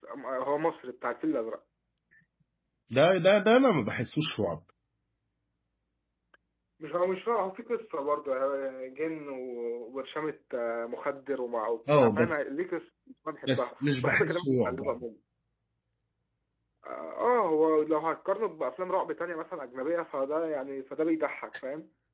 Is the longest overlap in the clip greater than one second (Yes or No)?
Yes